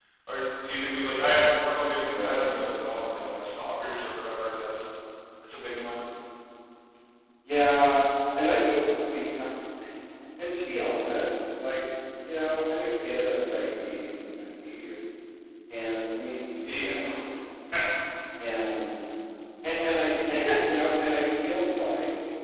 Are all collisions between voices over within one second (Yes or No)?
Yes